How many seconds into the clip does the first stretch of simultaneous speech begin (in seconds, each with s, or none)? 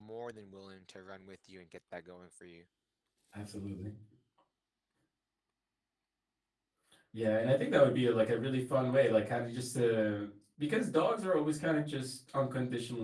none